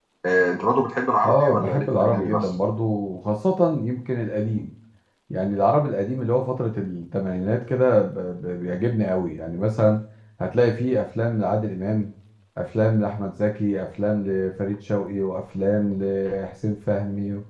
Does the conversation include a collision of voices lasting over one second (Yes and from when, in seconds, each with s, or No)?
Yes, from 1.2 s